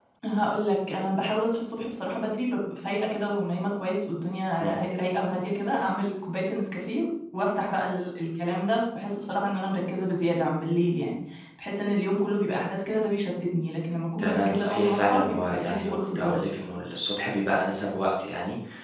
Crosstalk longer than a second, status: present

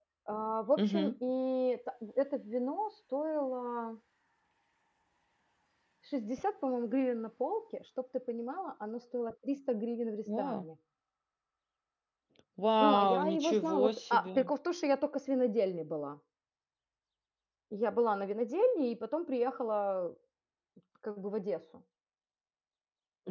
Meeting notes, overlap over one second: present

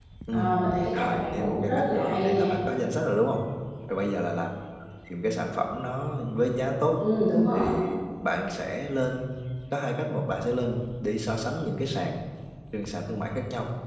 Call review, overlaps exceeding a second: present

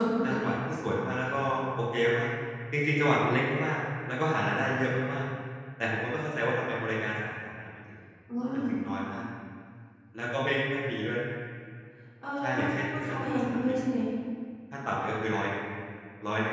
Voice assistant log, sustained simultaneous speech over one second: present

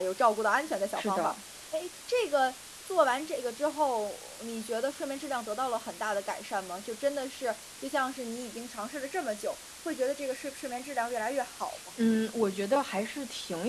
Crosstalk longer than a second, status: none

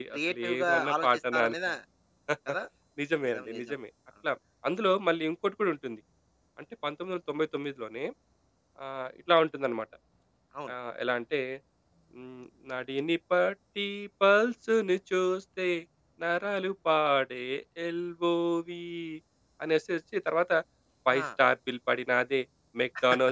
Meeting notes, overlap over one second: present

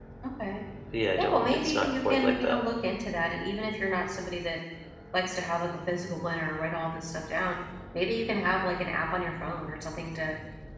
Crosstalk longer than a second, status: present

